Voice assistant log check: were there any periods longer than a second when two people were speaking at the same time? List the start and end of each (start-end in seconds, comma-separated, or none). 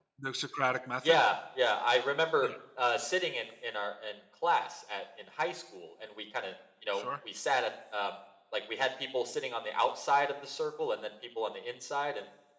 none